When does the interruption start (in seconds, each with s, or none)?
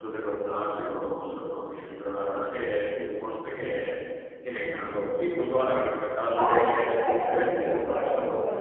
6.3 s